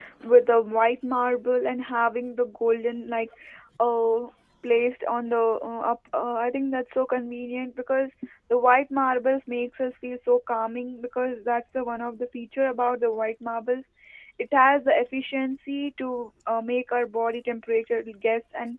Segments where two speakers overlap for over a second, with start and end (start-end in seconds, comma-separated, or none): none